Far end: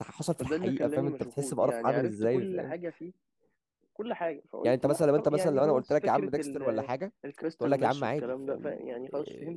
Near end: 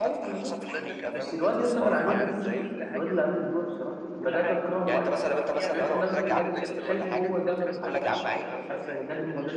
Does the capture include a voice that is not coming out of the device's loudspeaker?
Yes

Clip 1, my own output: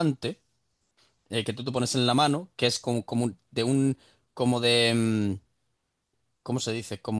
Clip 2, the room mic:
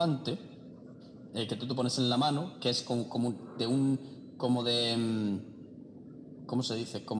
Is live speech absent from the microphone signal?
Yes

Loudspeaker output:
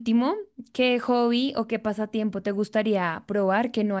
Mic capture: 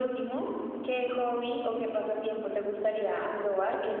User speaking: No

